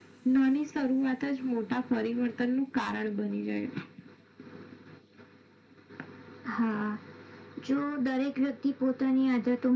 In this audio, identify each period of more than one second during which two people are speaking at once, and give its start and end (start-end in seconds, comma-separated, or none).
none